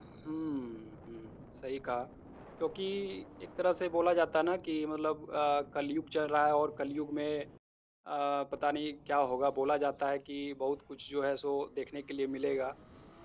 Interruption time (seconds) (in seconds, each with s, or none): none